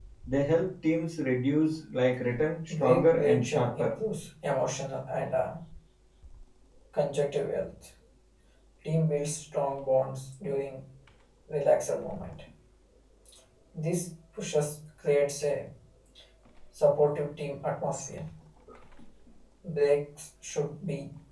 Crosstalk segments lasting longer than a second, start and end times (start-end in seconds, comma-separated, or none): 2.7-3.9